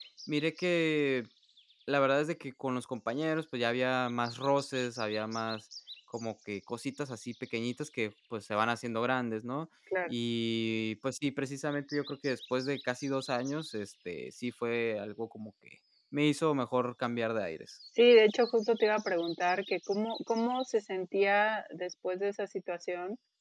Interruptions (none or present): none